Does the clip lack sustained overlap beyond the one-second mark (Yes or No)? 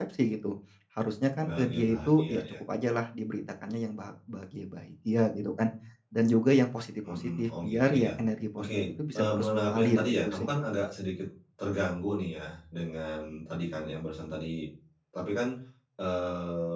No